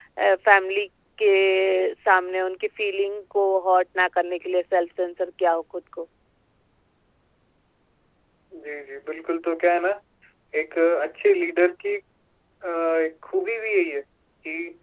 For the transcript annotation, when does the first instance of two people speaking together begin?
none

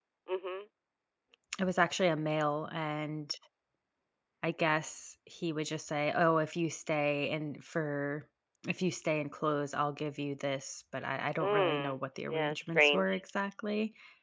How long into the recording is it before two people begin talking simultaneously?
11 s

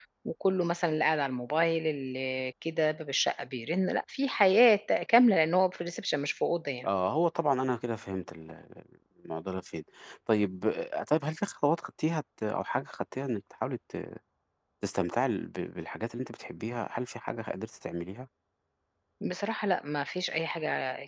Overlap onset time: none

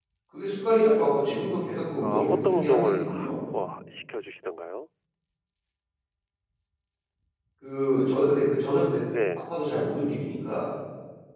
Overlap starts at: 2 s

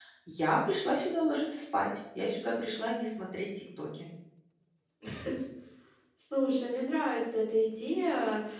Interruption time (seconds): none

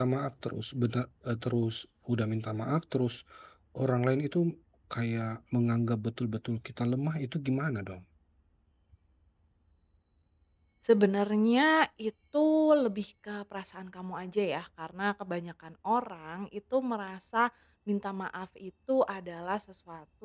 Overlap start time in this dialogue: none

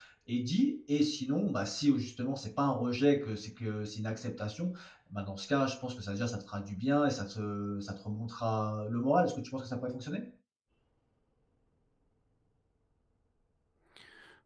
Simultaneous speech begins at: none

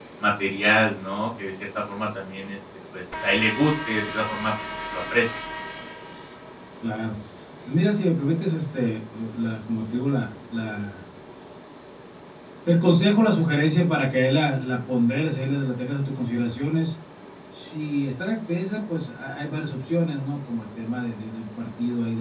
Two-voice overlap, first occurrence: none

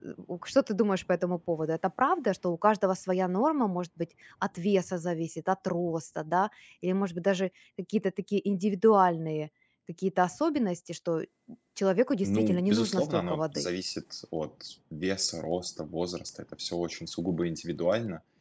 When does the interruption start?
12 s

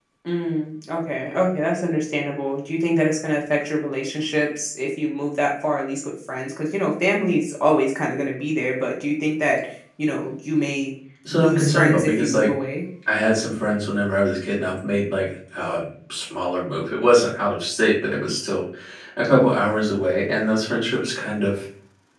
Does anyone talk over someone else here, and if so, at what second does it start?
11 s

